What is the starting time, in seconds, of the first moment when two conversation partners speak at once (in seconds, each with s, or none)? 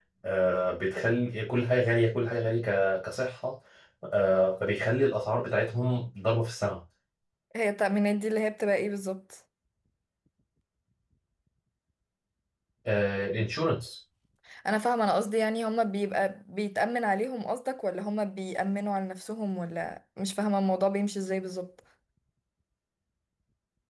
none